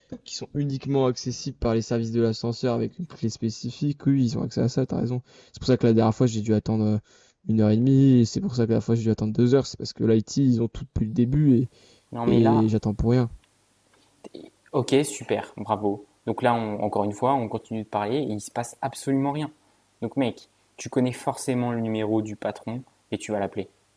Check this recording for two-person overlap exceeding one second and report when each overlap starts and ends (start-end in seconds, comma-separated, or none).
none